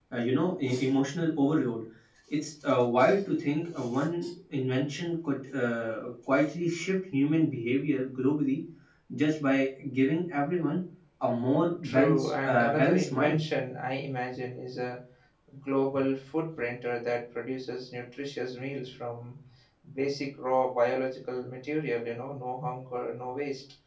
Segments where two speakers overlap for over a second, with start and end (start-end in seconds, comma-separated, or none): 11.8-13.4